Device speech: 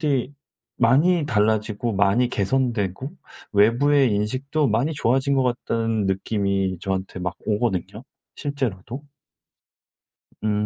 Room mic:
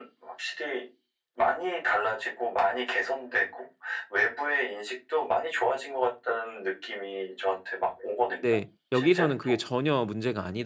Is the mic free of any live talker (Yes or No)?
No